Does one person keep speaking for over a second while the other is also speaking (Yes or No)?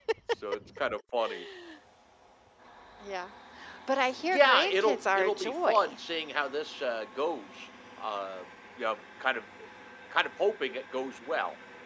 Yes